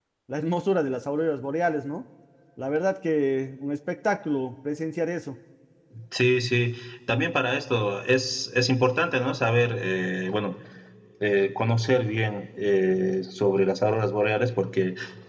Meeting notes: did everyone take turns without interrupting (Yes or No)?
Yes